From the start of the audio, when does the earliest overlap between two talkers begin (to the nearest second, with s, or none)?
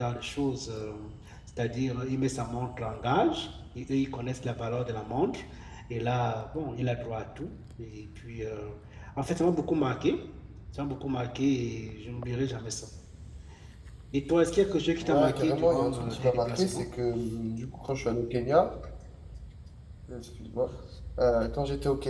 15 s